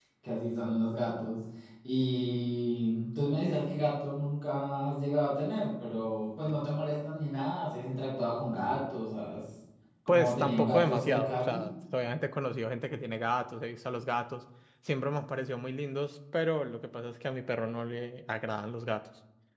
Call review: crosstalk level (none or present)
present